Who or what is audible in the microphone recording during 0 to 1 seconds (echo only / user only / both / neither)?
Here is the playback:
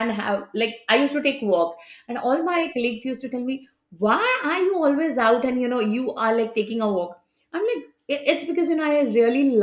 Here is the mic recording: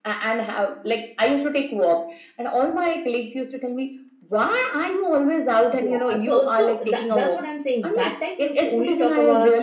echo only